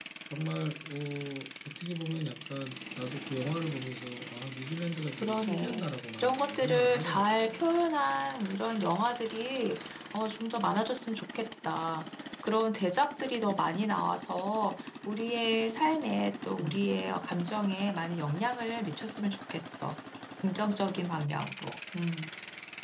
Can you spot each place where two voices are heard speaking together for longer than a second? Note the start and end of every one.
5.2-7.7

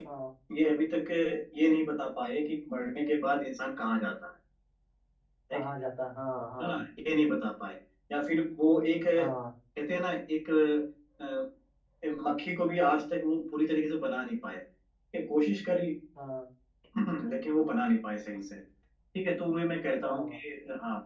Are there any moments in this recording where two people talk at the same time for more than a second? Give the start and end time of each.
none

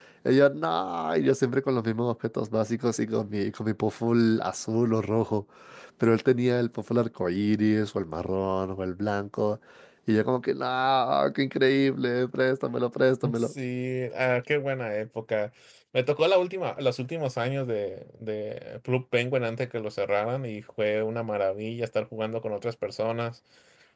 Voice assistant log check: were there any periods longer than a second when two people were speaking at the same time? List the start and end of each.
none

